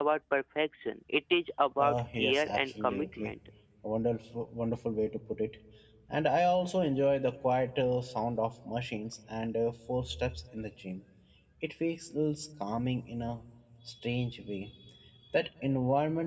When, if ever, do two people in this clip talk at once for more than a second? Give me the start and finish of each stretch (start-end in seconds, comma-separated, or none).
1.8-3.3